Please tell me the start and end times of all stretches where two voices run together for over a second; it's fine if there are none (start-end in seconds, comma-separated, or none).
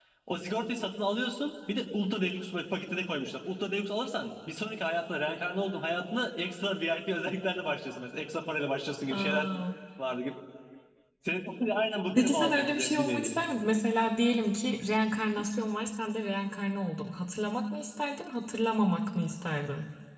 12.2-13.4